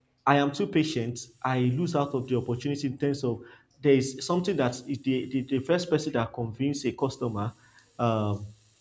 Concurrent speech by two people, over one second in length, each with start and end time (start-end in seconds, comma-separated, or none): none